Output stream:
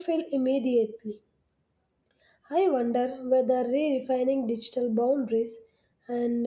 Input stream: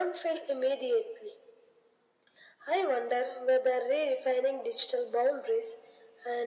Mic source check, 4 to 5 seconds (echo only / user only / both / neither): echo only